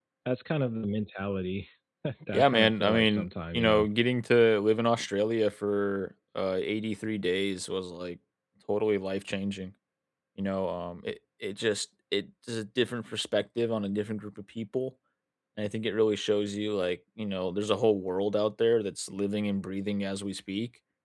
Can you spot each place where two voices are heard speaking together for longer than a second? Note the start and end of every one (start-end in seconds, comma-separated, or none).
2.3-3.9